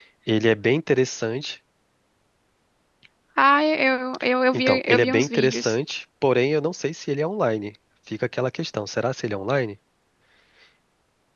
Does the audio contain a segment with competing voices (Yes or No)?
Yes